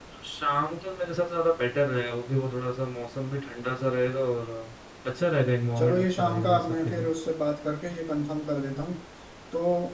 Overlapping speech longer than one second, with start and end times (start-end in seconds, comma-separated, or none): 5.8-7.1